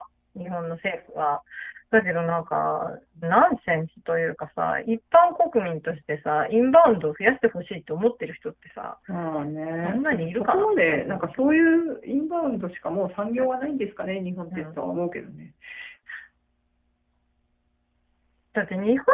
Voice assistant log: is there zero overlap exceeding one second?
No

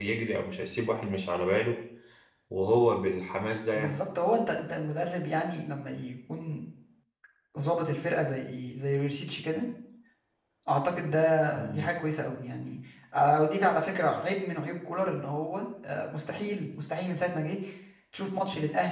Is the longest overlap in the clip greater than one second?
No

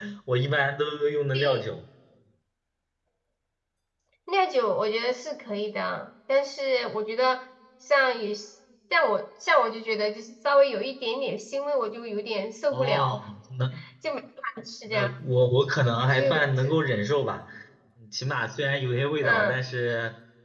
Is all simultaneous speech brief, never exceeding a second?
Yes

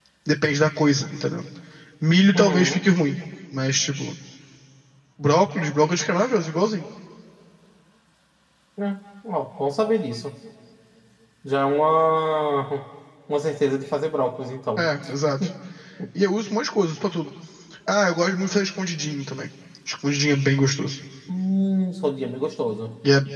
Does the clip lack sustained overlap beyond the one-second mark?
Yes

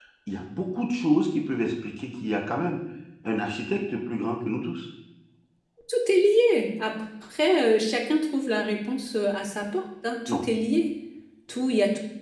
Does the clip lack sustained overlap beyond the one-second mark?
Yes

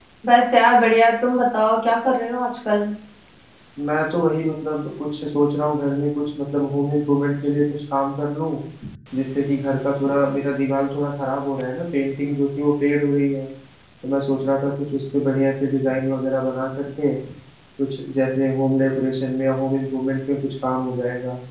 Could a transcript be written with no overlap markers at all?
Yes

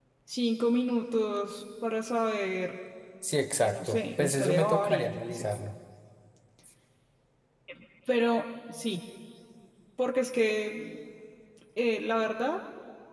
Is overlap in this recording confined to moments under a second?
No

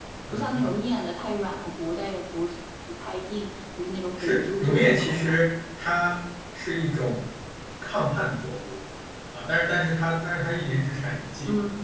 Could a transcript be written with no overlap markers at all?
No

